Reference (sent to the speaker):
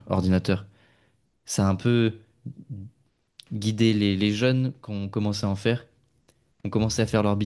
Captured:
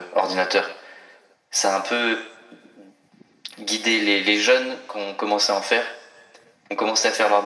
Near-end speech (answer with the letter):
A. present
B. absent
B